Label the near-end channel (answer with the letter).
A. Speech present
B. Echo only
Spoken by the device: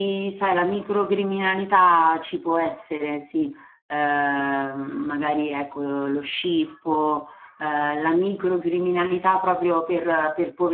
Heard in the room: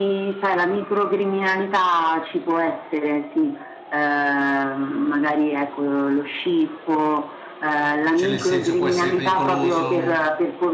A